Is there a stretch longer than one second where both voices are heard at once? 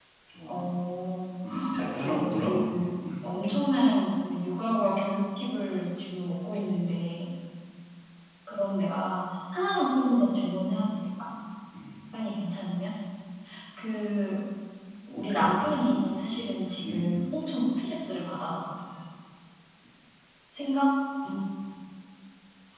Yes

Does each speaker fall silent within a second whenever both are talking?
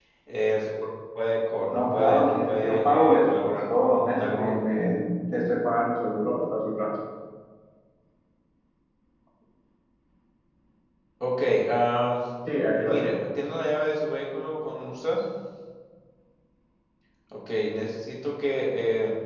No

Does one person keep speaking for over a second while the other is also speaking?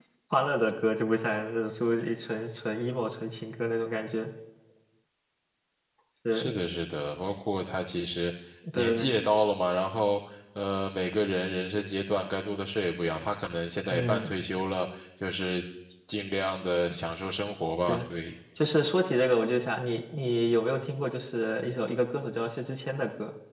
No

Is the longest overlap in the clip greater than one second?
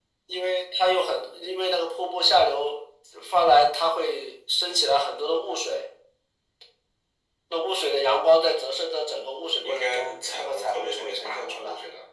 Yes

